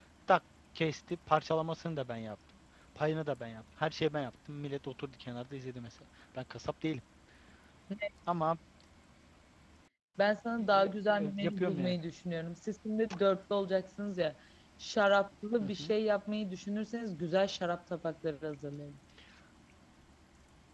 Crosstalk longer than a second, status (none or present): present